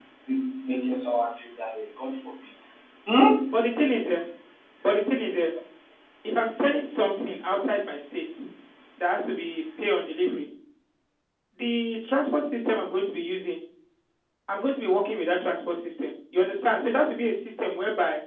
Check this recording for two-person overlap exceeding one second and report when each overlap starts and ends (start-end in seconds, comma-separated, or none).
none